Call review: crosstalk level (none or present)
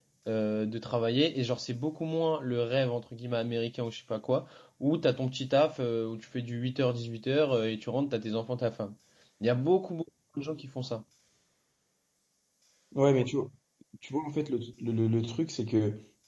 none